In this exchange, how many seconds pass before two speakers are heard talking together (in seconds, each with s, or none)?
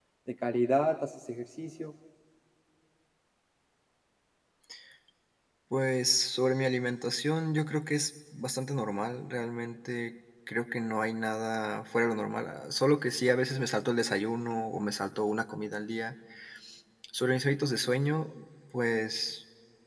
none